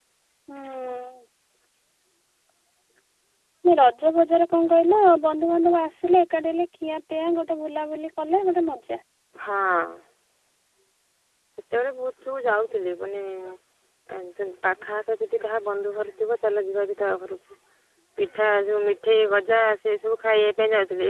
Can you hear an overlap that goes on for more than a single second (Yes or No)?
No